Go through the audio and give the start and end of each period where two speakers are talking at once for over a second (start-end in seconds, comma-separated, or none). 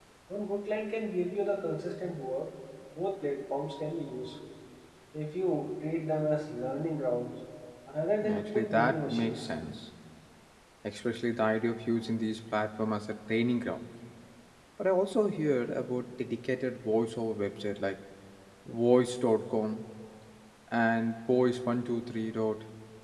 8.2-9.5